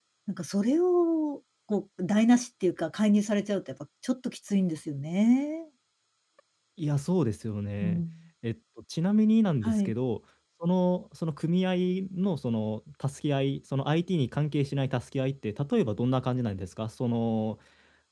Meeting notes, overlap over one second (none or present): none